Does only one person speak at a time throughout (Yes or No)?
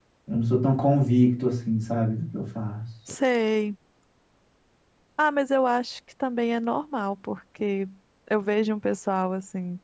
Yes